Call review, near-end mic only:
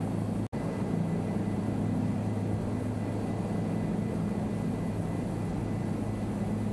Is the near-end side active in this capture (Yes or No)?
No